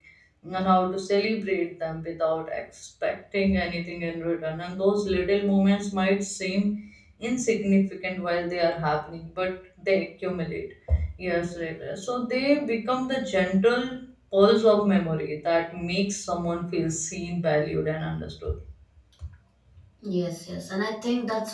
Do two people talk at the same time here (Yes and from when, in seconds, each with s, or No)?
No